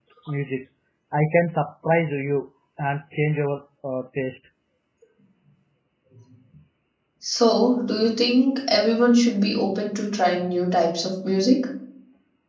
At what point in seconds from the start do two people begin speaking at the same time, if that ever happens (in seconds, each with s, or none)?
none